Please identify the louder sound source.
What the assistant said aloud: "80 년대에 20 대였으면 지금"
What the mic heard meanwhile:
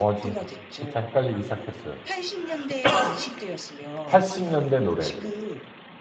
user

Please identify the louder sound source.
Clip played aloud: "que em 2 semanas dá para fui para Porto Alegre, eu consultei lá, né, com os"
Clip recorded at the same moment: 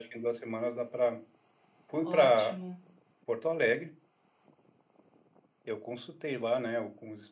echo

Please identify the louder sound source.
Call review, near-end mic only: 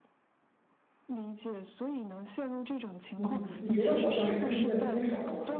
user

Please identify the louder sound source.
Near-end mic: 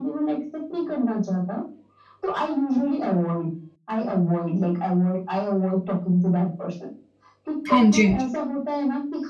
user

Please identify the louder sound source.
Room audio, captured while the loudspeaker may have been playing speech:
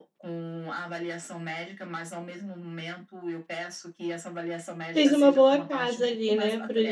user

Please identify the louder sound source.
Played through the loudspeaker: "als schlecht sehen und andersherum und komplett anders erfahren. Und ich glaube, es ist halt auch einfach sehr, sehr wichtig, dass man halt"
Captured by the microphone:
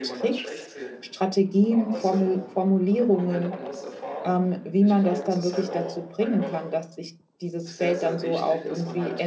user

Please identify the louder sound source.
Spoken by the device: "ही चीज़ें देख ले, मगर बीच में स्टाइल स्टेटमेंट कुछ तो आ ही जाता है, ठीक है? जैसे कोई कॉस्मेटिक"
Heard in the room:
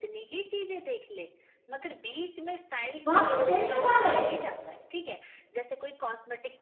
user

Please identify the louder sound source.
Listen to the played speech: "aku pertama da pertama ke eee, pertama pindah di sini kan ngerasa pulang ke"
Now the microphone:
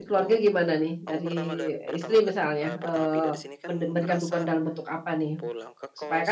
user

